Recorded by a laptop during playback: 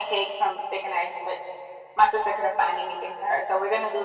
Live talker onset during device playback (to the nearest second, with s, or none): none